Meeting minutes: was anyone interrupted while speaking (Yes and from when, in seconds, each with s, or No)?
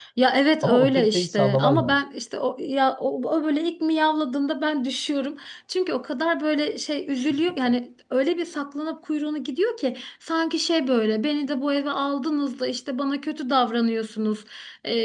Yes, from 0.6 s